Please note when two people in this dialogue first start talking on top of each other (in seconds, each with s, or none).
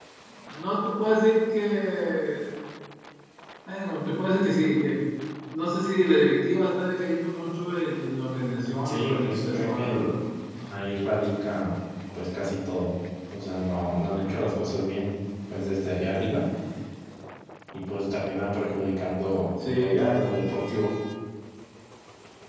8.8 s